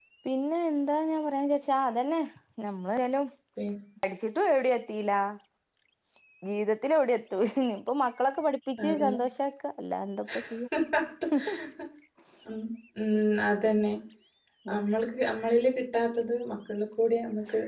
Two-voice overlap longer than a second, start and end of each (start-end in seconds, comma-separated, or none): none